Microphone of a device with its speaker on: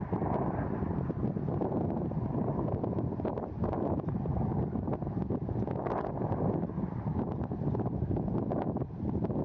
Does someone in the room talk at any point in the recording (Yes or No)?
No